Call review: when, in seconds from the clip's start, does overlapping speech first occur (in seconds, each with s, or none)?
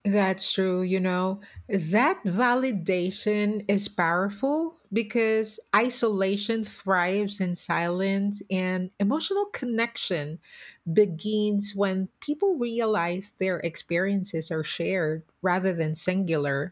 none